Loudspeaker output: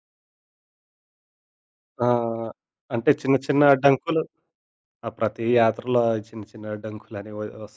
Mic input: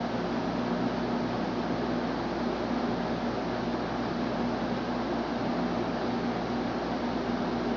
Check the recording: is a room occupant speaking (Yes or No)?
No